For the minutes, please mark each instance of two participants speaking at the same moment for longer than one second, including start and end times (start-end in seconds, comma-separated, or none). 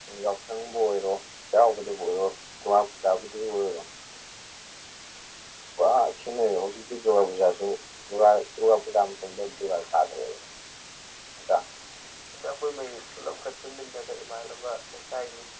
none